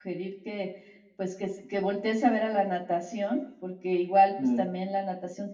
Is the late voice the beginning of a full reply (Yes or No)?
No